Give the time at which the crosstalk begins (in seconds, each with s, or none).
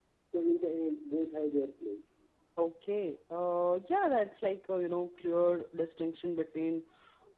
none